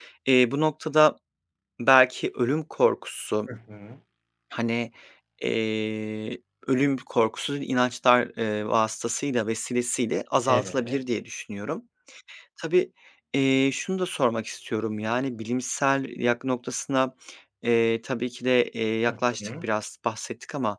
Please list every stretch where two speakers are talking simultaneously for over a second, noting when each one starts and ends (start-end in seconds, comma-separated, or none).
none